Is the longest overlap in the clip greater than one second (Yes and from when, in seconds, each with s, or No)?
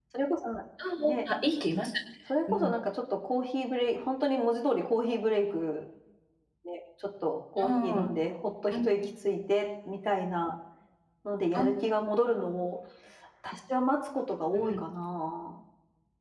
No